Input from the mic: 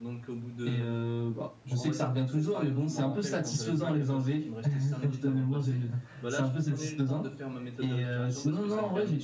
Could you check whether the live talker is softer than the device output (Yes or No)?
Yes